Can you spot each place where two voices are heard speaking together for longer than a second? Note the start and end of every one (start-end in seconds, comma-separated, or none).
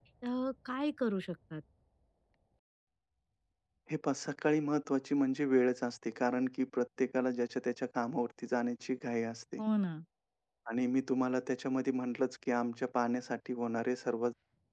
none